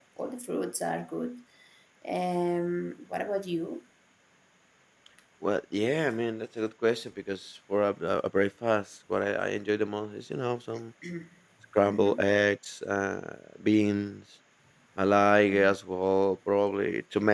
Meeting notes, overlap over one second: none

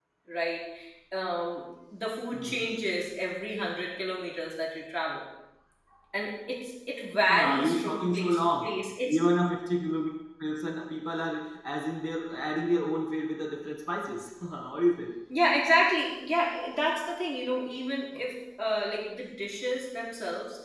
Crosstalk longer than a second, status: present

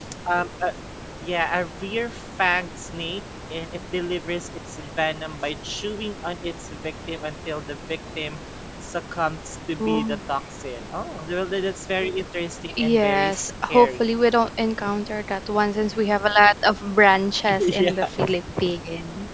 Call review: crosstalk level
present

